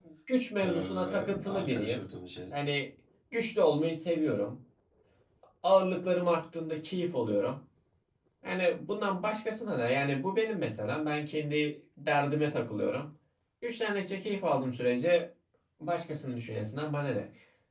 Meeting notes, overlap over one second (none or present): present